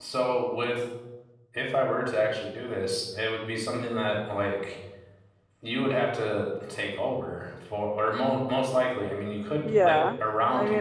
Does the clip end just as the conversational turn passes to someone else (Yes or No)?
Yes